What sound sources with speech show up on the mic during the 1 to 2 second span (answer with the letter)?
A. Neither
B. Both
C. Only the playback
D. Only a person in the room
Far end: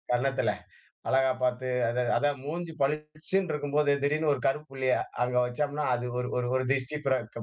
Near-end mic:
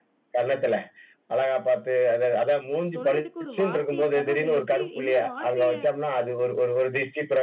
C